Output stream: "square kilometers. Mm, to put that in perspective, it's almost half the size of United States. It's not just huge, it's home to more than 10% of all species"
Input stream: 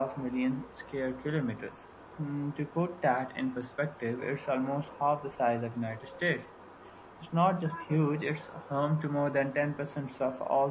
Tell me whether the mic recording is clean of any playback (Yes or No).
No